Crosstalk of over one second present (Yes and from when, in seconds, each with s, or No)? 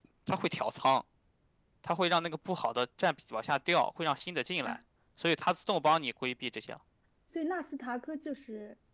No